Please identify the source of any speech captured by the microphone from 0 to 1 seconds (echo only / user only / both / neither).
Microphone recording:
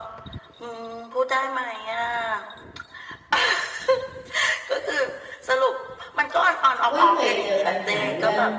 echo only